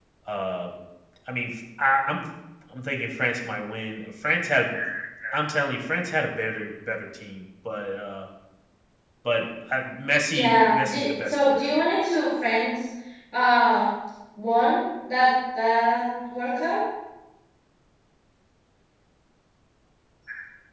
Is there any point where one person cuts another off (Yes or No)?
Yes